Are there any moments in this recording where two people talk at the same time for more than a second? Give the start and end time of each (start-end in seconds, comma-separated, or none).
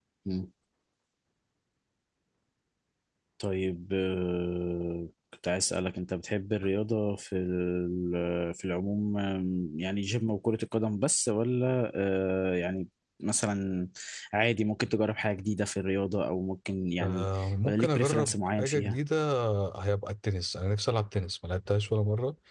17.6-19.0